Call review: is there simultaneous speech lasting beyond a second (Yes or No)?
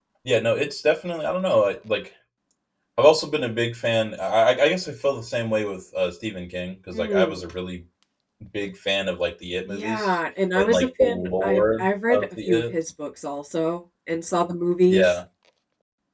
Yes